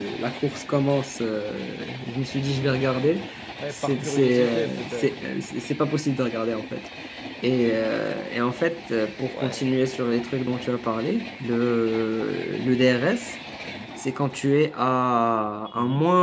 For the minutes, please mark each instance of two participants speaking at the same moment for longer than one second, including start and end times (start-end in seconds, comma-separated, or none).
3.7-5.4